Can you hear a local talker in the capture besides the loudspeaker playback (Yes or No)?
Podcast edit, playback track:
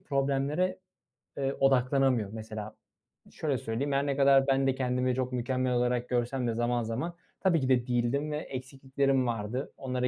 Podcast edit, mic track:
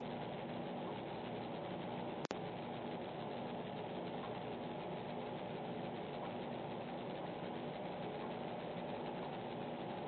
No